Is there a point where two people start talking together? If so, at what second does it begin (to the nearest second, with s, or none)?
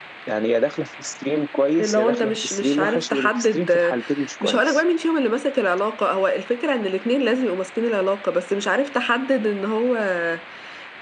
2 s